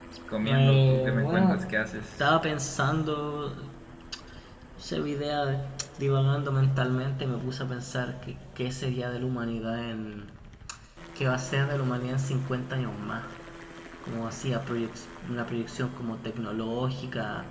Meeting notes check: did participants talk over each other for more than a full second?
Yes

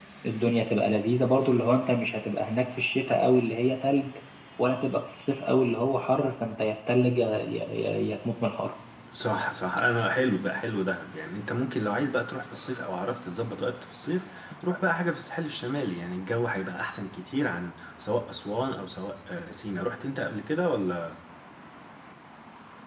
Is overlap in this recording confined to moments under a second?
Yes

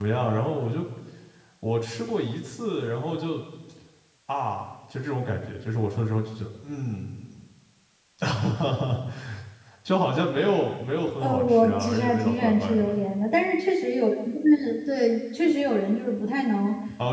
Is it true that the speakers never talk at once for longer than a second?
No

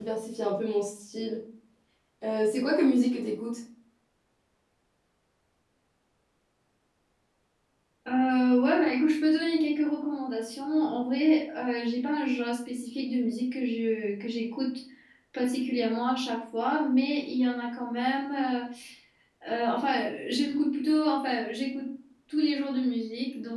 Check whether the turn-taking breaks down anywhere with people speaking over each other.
No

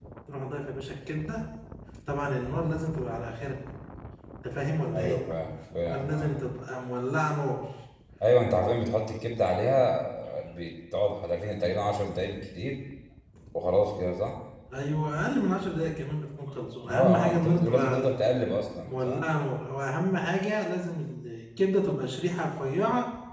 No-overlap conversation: No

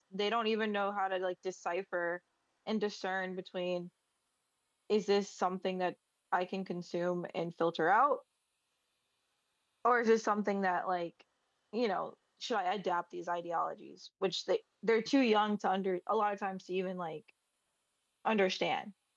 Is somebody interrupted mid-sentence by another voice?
No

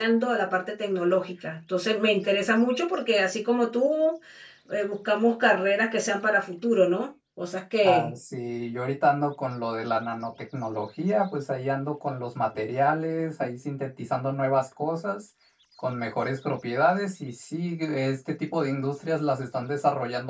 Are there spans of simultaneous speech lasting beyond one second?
No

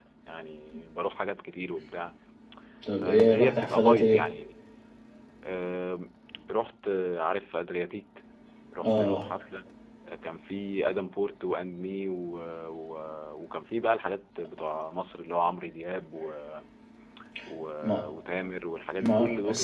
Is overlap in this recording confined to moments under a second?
No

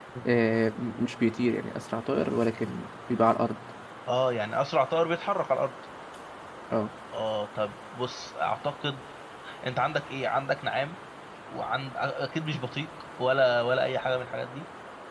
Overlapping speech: No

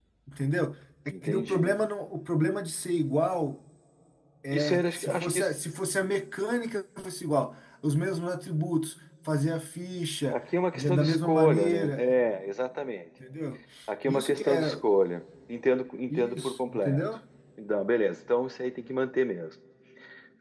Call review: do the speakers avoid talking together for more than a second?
No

